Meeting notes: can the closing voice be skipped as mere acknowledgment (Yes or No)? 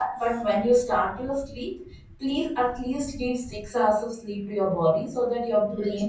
No